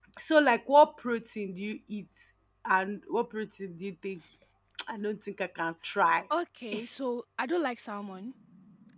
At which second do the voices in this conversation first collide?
none

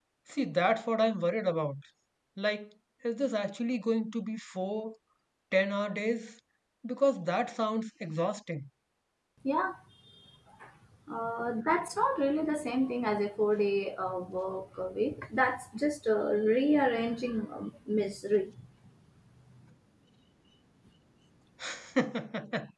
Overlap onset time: none

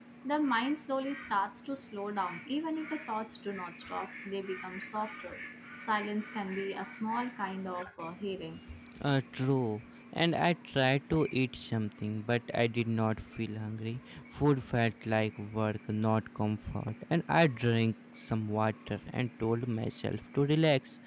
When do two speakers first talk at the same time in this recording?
none

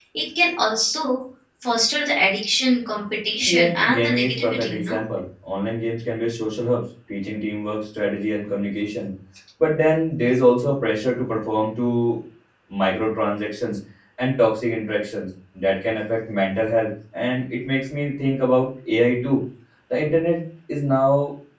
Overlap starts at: 3.5 s

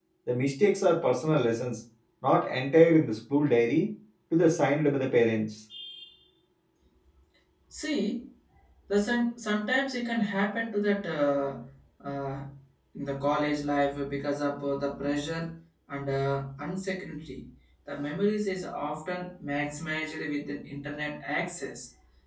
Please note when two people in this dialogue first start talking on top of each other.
none

